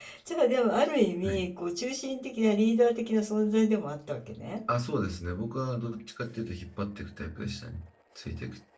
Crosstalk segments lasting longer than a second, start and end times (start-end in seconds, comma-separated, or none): none